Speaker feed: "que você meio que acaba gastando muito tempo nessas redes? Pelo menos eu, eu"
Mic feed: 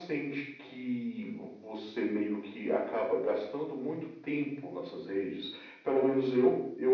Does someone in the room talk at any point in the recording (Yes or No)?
No